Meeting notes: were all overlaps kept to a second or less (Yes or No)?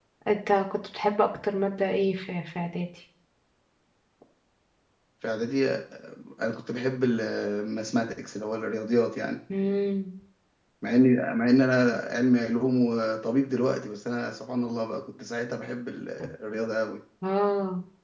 Yes